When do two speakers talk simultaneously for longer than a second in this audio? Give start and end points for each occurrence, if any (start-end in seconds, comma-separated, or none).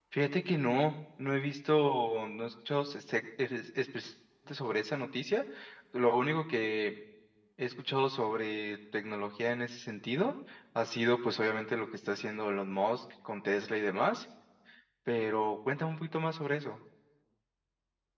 none